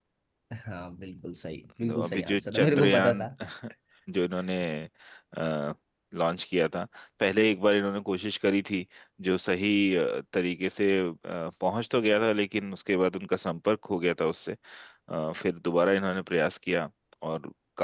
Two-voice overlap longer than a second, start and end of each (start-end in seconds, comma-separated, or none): 1.9-3.2